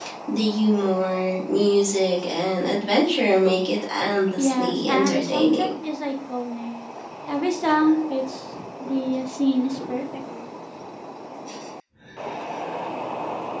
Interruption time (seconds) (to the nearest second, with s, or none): 4 s